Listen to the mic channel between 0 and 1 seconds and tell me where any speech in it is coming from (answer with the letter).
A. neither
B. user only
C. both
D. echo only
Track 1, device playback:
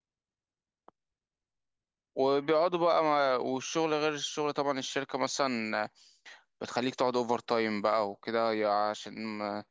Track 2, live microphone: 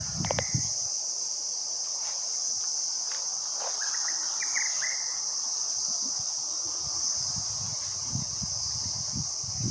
A